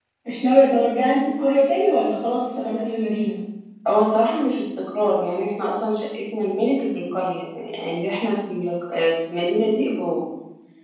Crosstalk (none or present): none